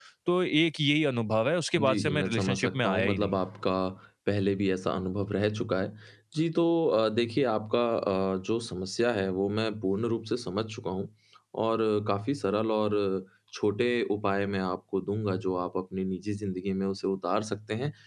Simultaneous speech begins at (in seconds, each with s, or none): 1.8 s